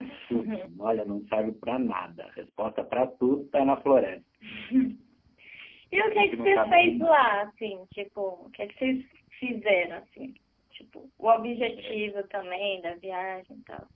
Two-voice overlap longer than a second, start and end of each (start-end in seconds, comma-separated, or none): 6.0-7.4